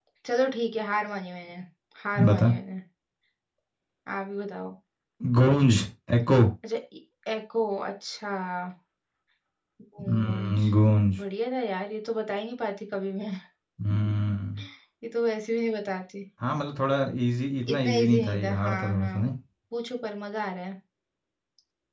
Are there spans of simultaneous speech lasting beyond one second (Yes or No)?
Yes